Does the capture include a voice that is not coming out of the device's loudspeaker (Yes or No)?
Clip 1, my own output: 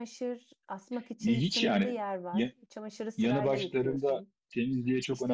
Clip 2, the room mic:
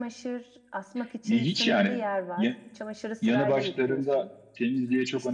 No